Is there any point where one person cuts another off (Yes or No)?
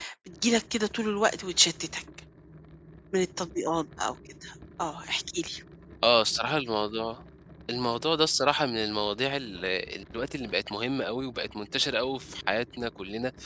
No